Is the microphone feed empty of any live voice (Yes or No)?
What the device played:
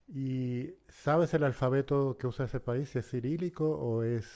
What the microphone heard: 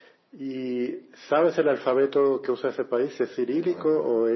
No